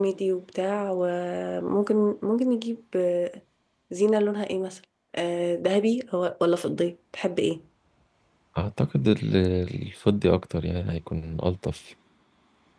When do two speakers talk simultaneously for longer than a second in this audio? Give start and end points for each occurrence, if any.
none

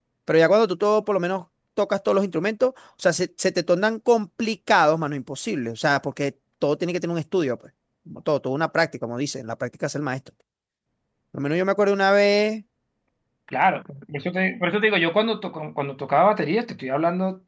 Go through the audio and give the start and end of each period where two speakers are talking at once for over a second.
none

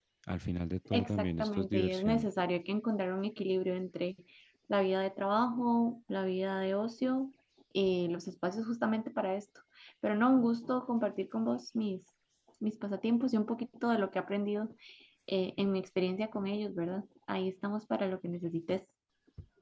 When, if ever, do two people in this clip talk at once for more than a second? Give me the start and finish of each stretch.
0.9-2.3

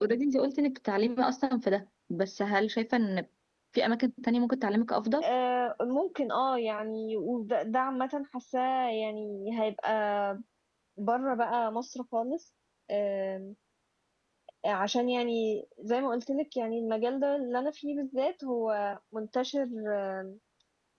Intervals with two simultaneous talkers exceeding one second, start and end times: none

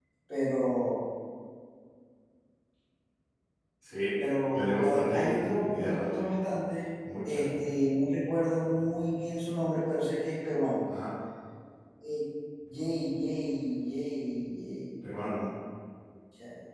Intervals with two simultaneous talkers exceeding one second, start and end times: 4.5-6.1

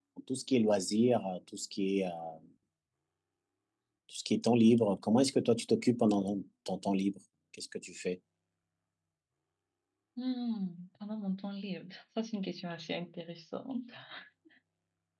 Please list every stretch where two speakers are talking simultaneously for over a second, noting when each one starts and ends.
none

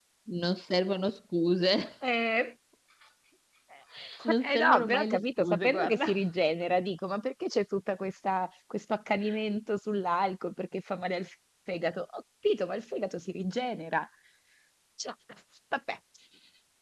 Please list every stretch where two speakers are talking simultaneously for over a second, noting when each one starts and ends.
4.2-6.1

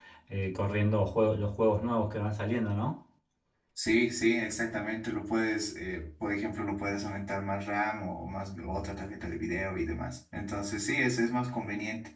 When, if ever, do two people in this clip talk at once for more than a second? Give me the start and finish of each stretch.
none

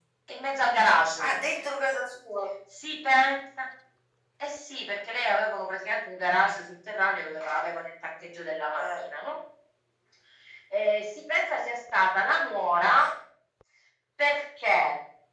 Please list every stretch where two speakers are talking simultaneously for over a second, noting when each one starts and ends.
none

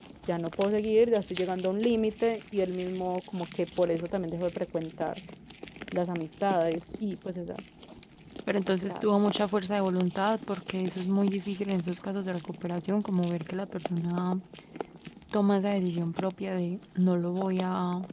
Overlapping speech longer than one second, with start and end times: none

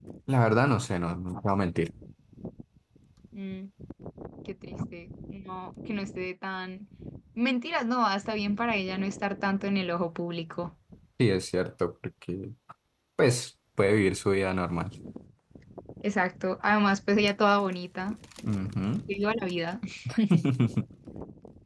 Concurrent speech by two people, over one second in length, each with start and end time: none

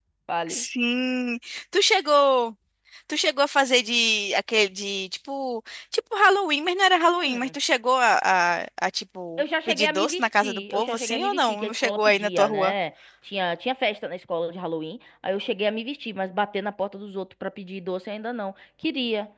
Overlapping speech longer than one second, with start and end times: 9.4-12.7

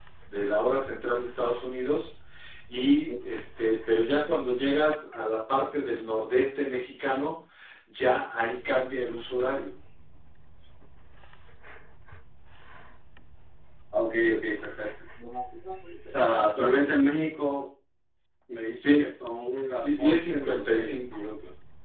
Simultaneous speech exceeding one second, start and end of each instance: 19.8-21.2

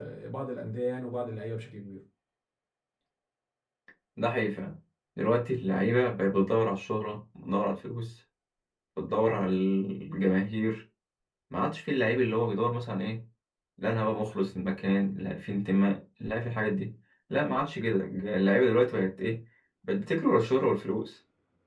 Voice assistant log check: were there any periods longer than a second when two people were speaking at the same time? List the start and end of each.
none

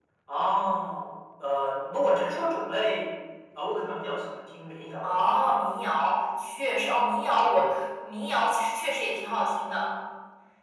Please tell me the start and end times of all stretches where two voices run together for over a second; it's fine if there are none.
none

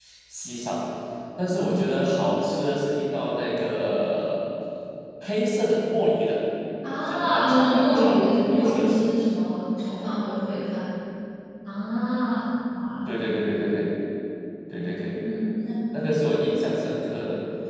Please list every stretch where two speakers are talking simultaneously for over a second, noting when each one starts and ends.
7.3-9.0

